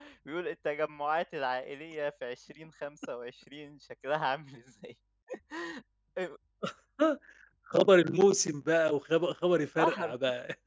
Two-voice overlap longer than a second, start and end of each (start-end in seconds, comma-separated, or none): none